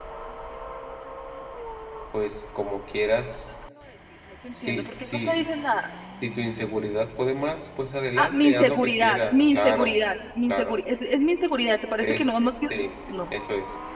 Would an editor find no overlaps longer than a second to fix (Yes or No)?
No